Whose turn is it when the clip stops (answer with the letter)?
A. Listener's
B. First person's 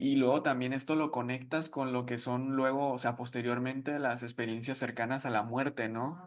B